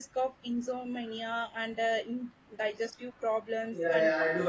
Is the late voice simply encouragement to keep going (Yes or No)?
No